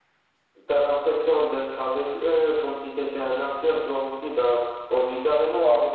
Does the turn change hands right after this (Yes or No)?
No